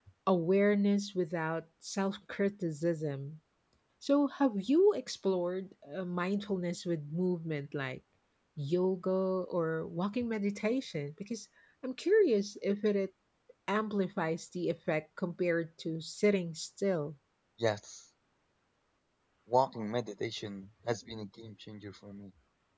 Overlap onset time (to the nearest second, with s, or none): none